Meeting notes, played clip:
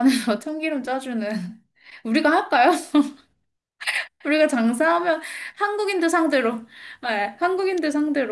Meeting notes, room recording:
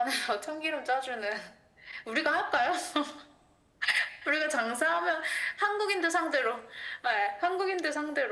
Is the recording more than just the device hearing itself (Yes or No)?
No